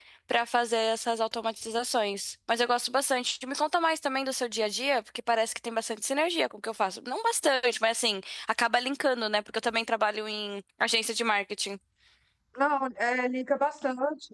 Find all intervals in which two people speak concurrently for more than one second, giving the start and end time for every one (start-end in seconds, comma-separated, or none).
none